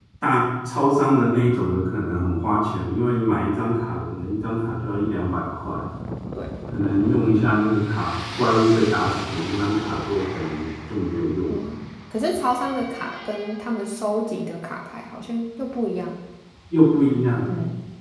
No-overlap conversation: Yes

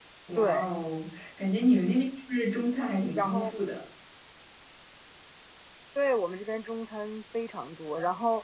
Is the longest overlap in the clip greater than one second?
No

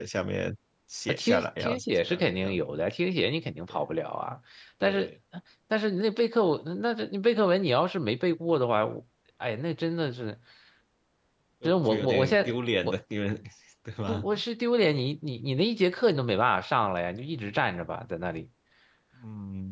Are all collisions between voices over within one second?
No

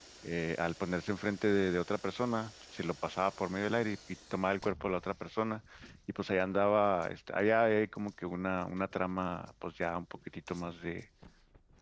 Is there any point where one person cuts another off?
No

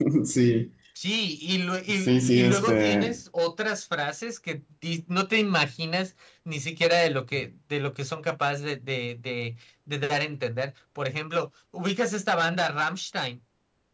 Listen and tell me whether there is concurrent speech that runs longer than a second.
Yes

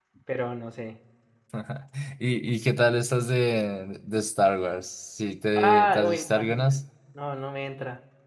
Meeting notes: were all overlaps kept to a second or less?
No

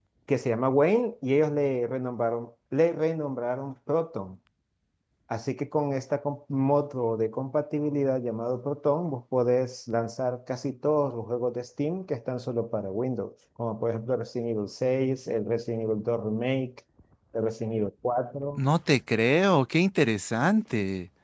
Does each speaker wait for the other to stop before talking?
Yes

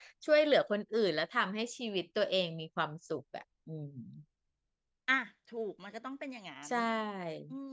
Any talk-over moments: No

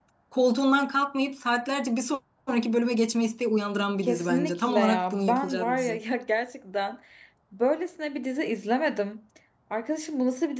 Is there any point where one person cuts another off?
Yes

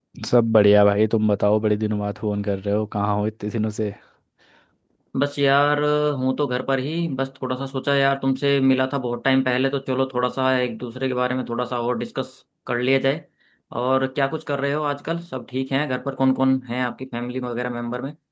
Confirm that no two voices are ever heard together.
Yes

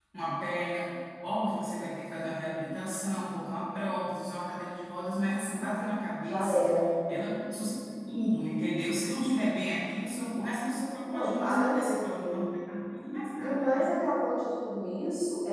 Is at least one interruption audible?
Yes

